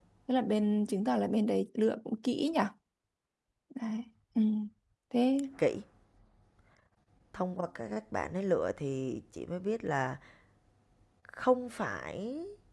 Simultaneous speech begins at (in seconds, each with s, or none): none